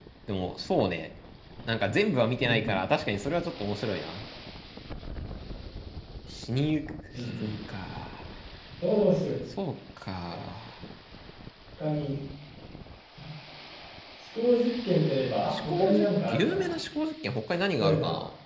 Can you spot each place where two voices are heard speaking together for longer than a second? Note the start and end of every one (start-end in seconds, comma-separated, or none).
15.5-16.8